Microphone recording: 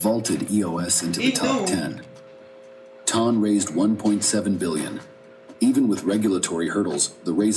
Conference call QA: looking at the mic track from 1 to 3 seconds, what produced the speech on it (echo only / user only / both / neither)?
both